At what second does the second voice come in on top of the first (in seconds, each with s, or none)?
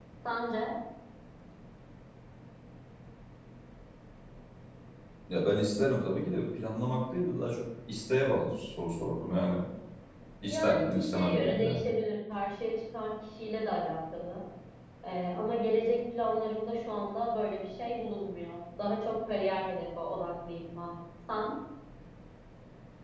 10.5 s